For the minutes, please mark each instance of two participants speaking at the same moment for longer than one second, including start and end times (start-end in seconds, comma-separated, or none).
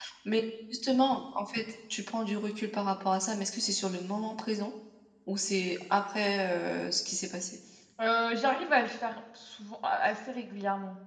none